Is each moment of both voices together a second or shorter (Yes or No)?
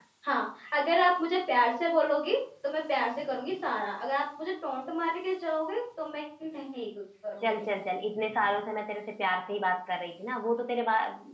Yes